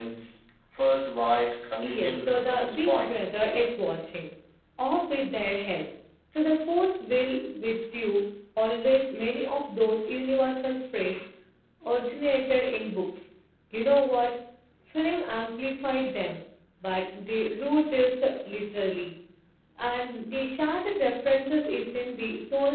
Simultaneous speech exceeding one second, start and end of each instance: 1.8-3.3

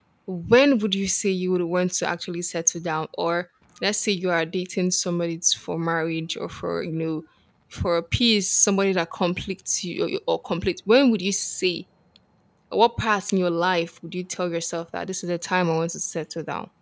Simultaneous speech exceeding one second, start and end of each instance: none

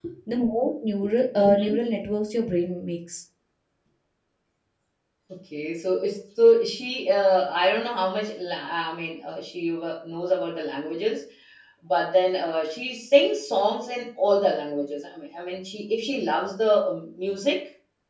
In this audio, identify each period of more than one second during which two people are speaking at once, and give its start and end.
none

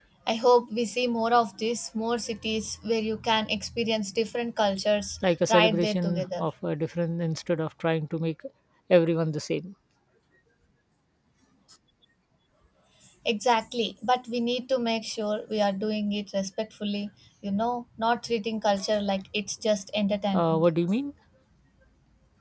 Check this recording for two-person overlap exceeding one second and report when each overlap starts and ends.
5.2-6.5

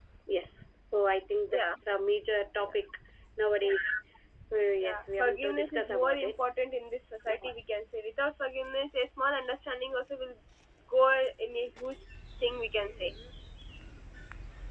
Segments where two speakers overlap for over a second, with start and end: 4.8-6.3

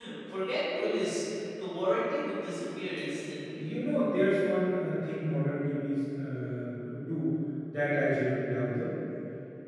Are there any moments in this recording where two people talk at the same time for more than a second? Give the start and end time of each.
none

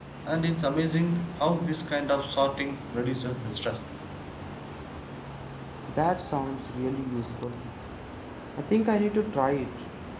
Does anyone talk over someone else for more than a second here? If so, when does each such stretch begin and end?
none

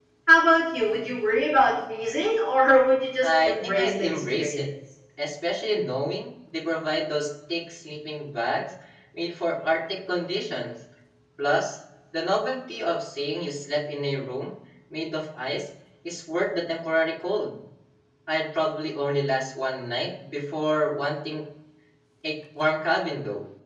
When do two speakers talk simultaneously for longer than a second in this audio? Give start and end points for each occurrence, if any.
3.2-4.6

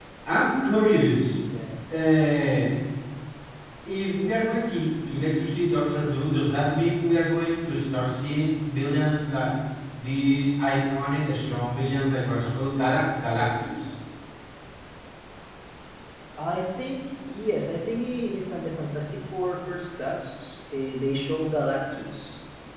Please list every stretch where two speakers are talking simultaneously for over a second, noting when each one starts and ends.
none

